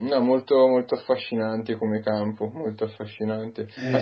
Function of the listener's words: listening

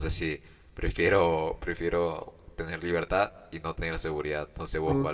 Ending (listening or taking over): taking over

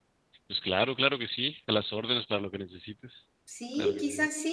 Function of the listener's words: taking over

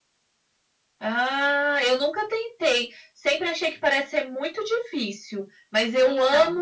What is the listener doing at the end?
listening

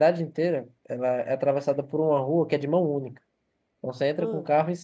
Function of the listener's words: listening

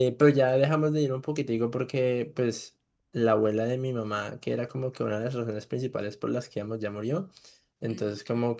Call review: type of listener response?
listening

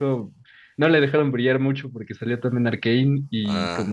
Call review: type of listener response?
listening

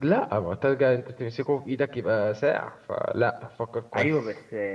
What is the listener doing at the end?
taking over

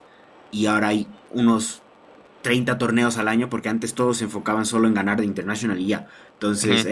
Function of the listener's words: listening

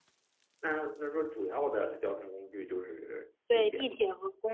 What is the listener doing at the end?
taking over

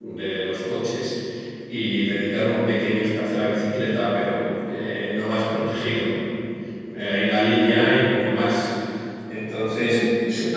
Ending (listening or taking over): listening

